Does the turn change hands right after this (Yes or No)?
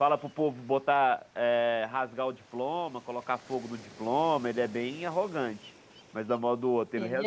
No